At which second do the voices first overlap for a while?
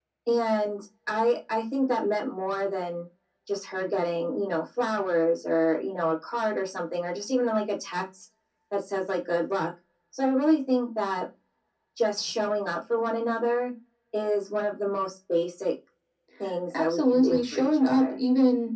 16.8 s

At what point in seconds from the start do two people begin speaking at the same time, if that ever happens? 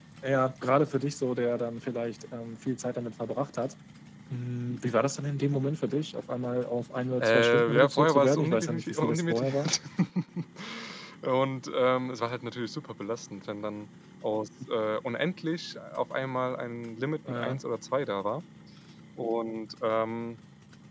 7.2 s

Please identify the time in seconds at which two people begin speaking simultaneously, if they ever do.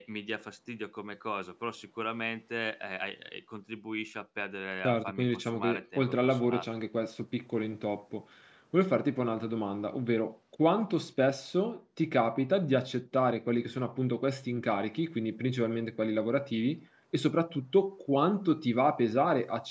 4.8 s

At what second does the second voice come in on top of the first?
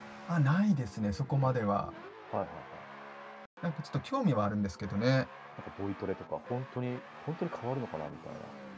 none

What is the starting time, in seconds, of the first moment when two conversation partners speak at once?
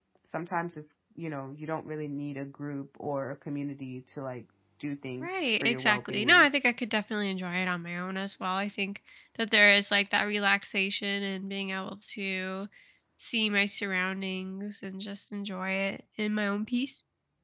5.2 s

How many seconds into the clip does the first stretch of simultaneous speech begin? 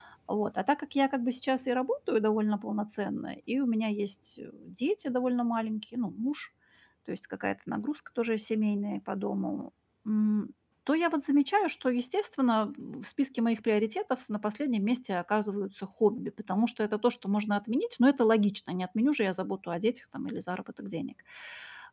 none

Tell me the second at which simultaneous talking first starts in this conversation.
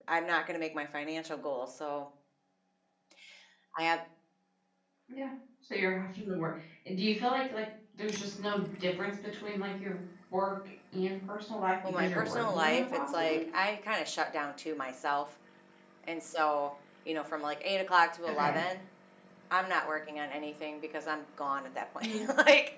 11.9 s

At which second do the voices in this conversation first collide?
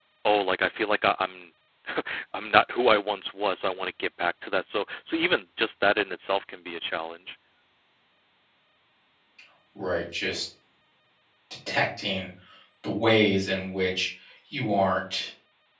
none

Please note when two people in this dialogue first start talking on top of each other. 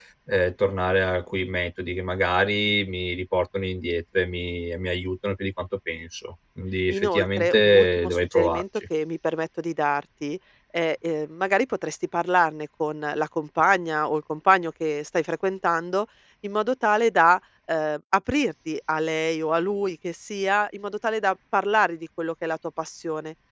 6.9 s

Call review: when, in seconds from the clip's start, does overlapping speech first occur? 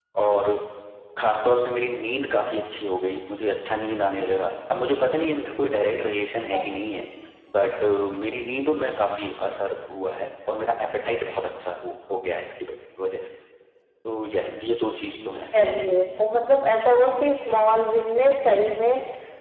none

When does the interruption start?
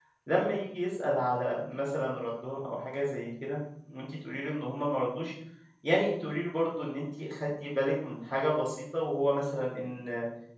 none

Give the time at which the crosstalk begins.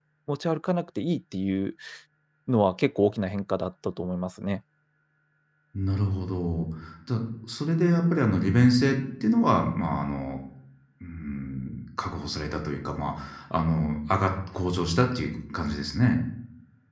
none

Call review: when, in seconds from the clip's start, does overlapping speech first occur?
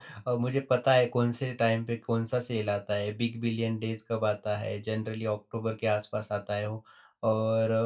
none

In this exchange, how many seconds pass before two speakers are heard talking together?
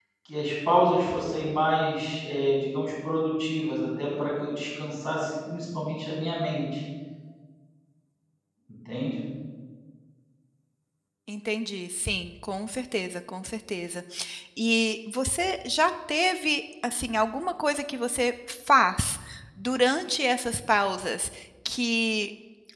none

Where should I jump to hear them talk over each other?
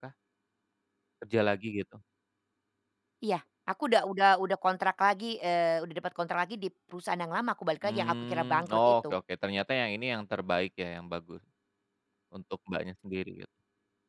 7.8 s

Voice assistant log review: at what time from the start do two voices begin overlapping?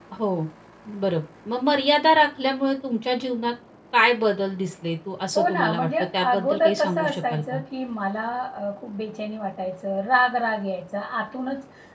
5.3 s

